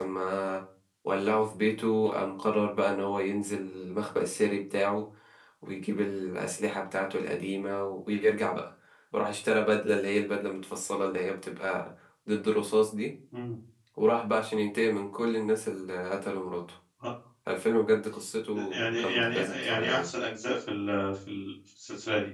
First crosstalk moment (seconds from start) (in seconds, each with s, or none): 18.5 s